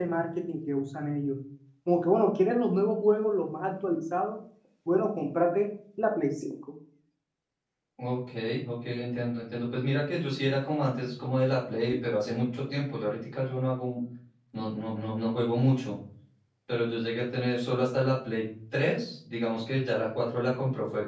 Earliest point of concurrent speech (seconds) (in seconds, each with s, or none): none